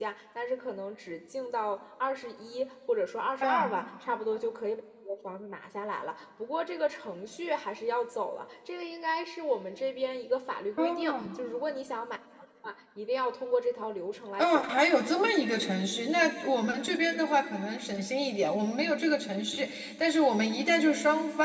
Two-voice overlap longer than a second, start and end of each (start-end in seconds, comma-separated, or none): none